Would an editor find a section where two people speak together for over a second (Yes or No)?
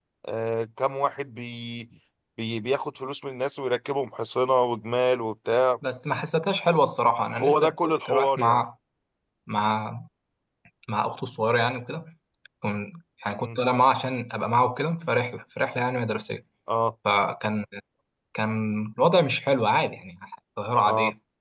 Yes